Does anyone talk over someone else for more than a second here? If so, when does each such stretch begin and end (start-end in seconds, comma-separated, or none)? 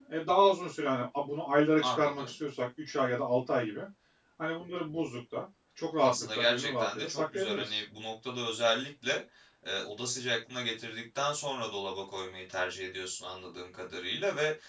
6.0-7.8